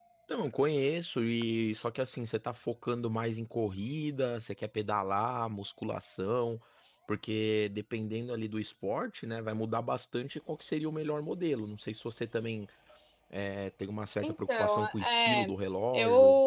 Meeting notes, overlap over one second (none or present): present